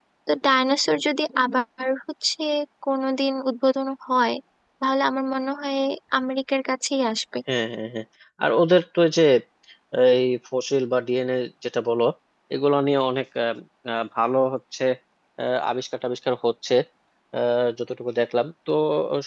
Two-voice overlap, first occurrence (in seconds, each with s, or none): none